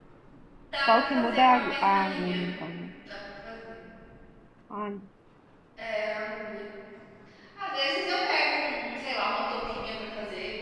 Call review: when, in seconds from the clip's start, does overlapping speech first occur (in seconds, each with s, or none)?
0.8 s